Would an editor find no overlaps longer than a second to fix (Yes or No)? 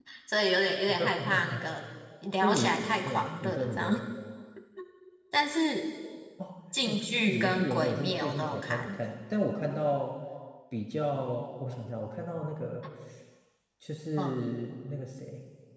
No